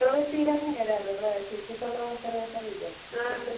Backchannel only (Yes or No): Yes